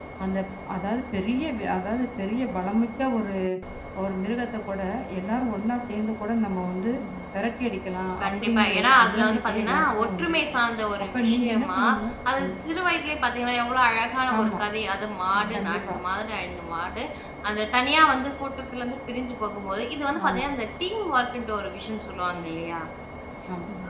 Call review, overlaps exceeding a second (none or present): present